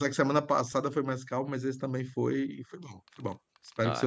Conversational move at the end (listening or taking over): taking over